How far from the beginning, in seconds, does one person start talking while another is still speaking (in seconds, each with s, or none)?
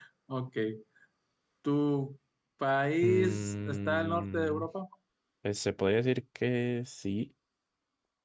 3.0 s